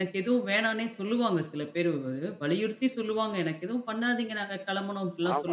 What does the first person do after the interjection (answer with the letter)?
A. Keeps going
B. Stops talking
B